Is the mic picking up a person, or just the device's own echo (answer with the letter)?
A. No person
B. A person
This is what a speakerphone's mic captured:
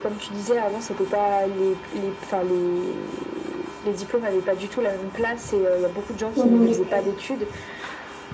B